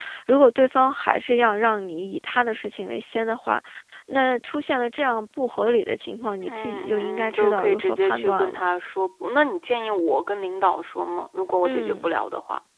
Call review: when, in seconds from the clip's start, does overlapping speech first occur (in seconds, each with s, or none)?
6.5 s